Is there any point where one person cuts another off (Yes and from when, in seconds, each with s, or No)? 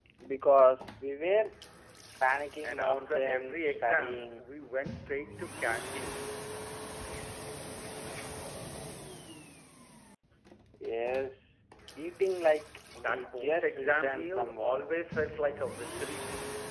Yes, from 2.6 s